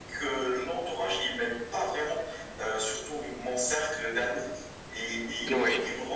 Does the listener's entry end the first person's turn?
No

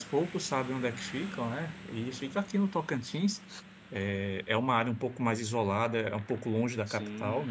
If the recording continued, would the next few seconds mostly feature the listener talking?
No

